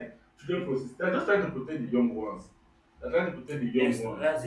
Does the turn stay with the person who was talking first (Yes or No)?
No